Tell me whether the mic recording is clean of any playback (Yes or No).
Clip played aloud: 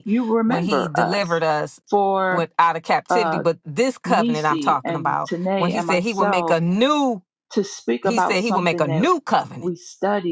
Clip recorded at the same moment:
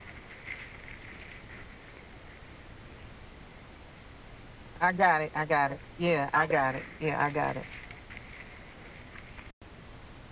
Yes